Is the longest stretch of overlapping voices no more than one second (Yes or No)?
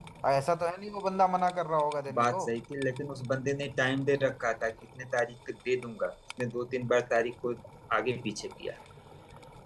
Yes